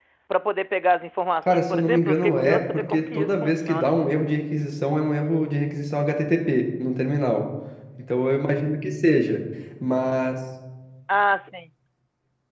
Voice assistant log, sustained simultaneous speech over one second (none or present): present